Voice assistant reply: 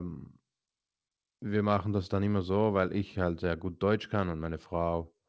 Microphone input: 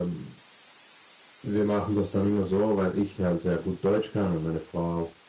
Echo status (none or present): present